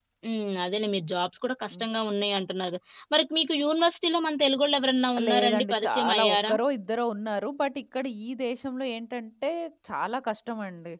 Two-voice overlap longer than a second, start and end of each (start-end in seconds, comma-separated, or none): 5.3-6.5